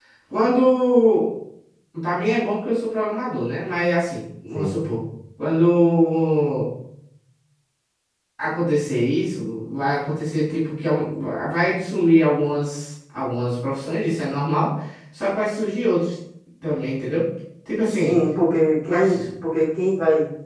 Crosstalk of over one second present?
No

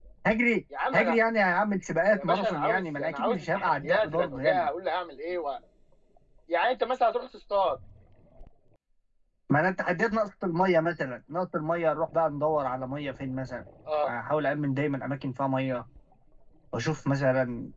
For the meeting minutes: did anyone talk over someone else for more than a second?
Yes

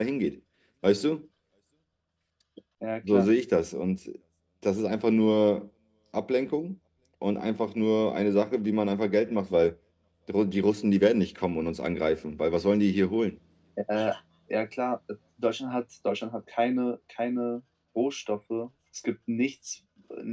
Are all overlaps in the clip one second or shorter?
Yes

